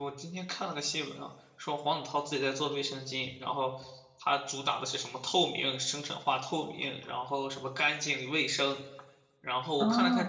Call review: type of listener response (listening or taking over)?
taking over